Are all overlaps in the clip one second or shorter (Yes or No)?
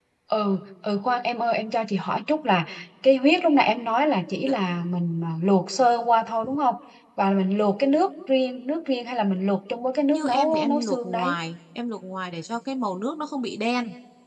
No